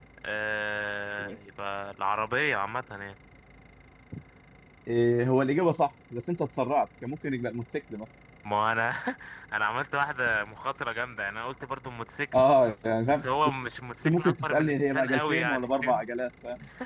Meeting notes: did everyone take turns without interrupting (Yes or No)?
No